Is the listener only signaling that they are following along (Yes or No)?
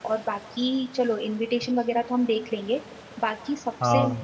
Yes